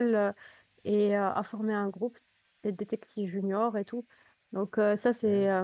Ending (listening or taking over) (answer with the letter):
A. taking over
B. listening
B